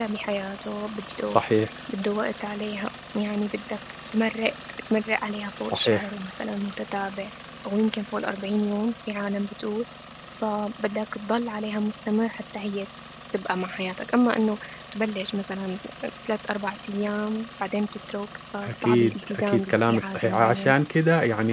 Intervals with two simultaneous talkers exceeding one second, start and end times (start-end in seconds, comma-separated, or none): 18.6-20.7